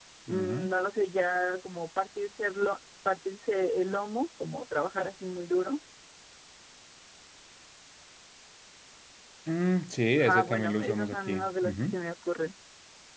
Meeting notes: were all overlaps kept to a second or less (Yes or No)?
No